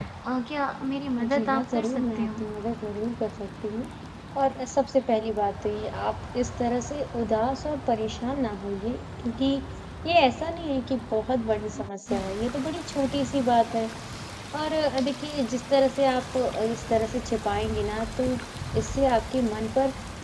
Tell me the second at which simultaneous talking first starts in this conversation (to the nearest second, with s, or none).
1 s